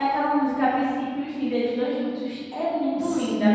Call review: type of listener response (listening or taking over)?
taking over